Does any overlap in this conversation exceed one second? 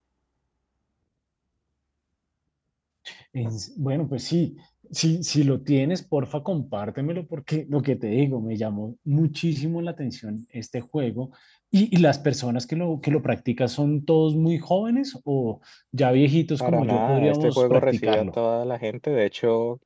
Yes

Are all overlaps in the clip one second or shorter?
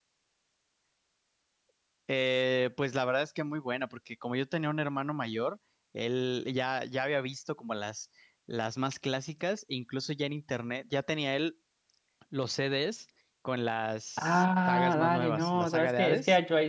No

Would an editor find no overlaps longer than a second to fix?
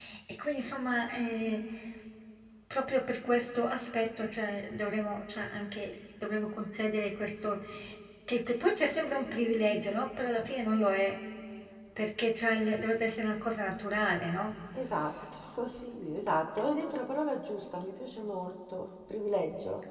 Yes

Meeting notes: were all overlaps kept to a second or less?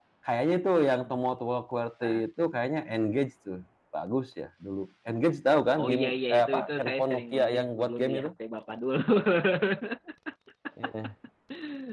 No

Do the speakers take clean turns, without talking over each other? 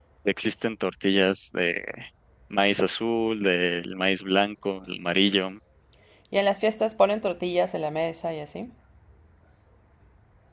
Yes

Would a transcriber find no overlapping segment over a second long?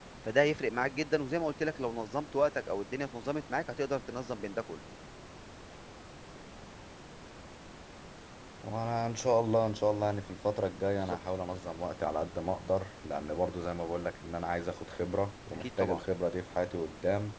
Yes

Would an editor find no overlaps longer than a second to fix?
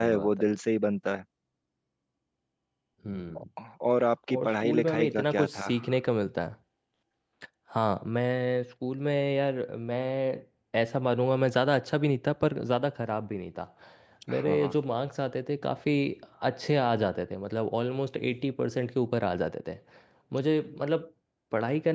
No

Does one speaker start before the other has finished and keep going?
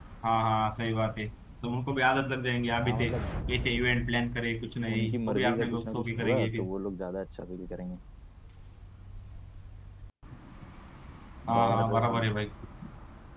Yes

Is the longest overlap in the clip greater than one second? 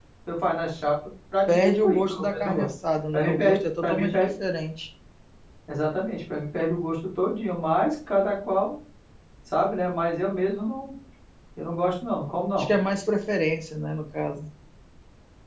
Yes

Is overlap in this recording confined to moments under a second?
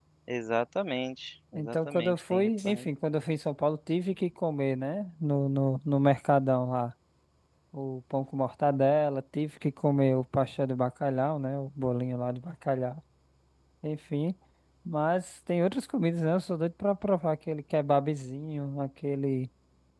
No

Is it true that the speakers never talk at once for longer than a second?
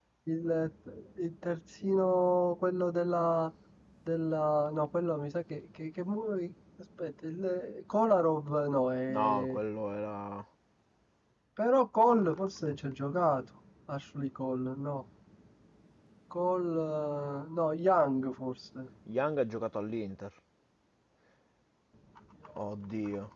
Yes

